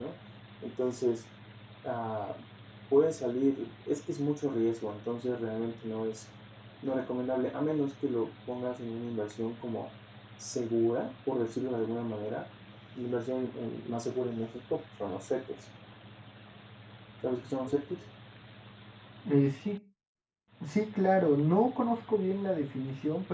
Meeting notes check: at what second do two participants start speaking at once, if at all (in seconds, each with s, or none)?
none